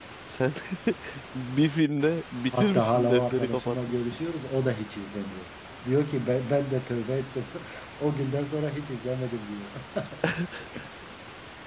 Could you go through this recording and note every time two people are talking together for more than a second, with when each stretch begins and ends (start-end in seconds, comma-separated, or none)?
2.5-4.2